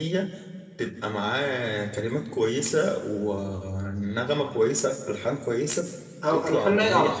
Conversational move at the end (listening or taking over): taking over